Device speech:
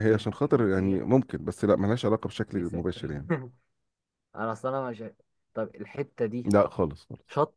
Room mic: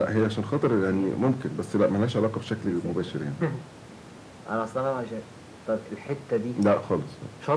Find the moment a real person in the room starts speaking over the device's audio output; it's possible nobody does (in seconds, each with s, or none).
none